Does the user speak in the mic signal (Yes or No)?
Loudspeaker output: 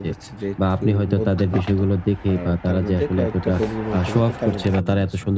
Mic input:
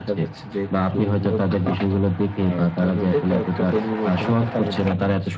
No